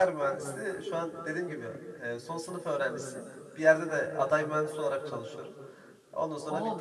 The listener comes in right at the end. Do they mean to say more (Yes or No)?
Yes